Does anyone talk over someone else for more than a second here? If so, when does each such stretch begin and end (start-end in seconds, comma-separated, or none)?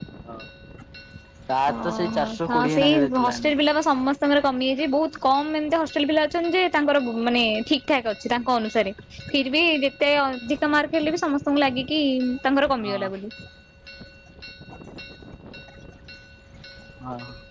1.7-3.4